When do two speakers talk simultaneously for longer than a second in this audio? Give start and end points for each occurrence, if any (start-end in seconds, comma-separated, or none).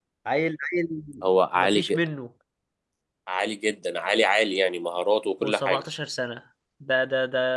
none